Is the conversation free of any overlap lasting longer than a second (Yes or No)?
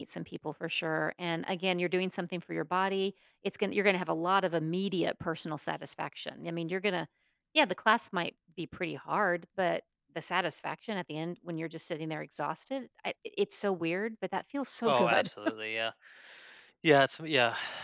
Yes